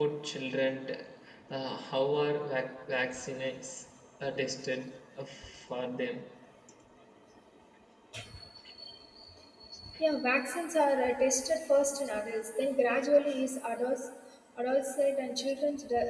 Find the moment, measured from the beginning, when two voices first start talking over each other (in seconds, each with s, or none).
none